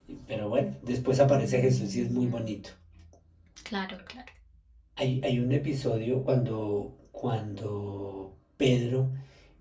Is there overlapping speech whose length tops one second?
Yes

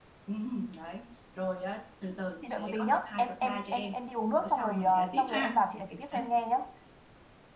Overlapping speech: Yes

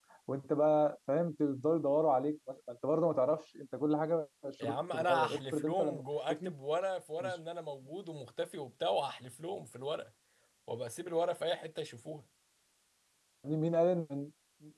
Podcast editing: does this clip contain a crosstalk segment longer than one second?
Yes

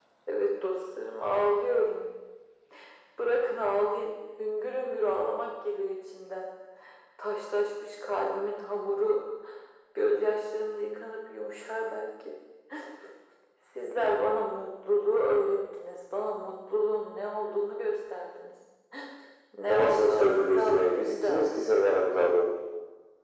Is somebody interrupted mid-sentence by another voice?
Yes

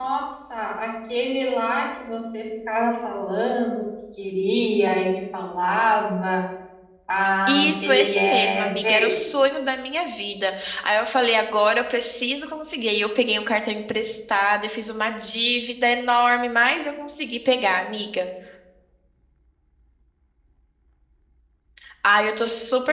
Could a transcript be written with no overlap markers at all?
No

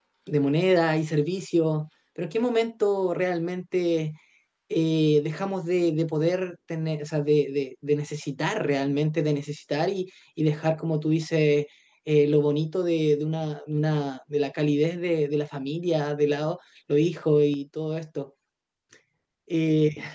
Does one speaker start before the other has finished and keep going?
No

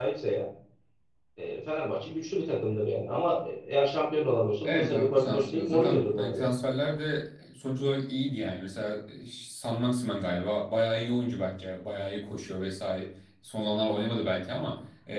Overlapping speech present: Yes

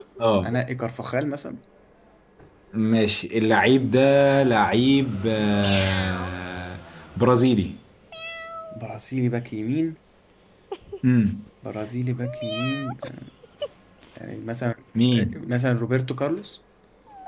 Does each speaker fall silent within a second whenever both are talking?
Yes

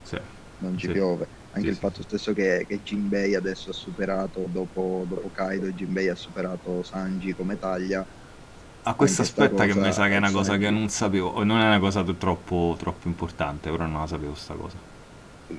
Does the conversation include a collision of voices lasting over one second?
Yes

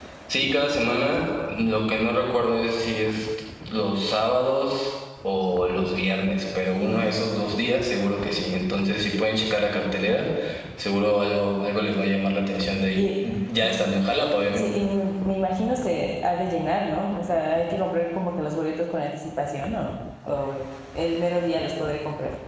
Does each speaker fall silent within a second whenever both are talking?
Yes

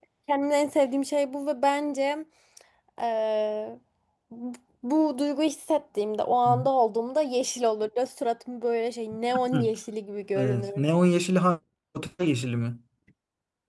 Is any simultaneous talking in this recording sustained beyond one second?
No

